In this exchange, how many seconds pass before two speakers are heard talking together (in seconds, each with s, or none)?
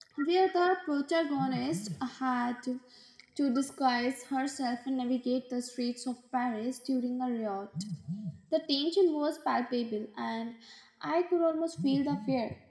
none